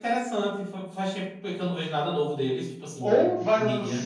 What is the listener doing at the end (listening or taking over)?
taking over